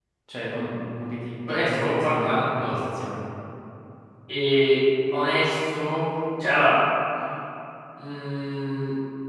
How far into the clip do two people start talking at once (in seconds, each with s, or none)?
1.5 s